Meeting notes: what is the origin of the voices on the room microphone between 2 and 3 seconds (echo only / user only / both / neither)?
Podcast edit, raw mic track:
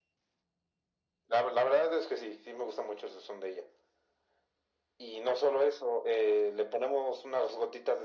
echo only